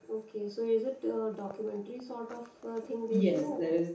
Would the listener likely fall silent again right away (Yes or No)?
No